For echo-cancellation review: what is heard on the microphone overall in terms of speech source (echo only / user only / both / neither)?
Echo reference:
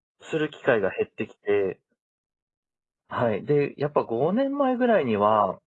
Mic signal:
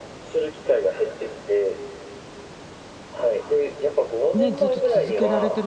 both